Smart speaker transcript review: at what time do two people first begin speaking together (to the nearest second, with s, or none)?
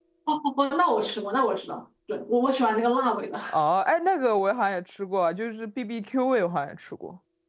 none